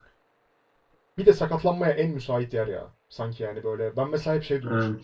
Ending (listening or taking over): listening